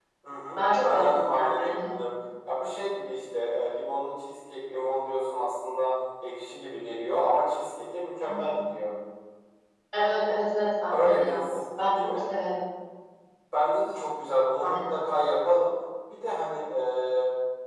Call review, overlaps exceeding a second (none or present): present